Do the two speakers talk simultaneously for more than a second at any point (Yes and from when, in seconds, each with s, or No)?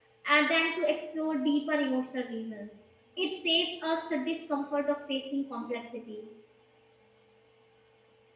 No